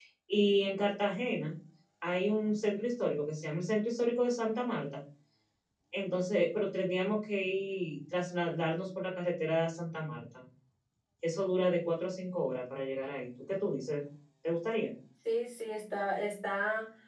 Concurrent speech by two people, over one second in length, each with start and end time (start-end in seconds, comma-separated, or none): none